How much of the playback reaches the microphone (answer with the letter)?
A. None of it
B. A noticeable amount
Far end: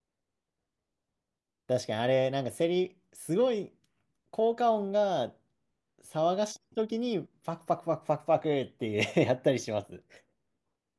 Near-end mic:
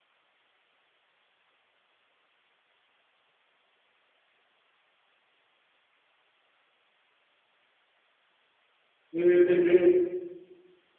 A